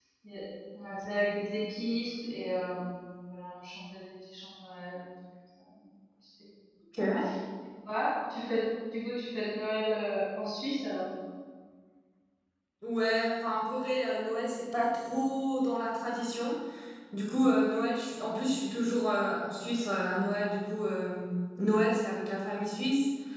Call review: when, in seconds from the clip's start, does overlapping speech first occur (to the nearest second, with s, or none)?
none